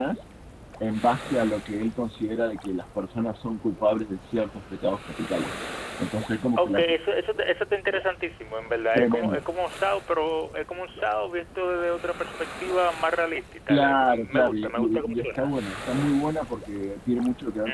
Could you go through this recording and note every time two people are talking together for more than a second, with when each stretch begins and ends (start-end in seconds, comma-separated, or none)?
13.7-15.5